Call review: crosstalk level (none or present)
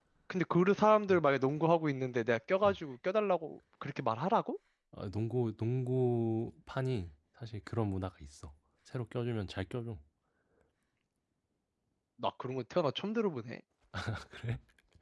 none